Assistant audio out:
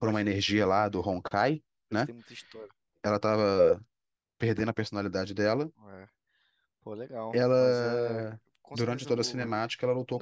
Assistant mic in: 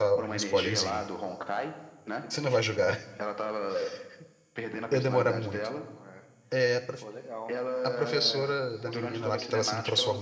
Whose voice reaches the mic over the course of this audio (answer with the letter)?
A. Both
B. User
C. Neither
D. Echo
A